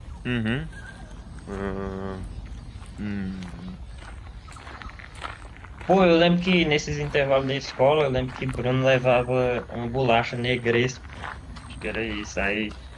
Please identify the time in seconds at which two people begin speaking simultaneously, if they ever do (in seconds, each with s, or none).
none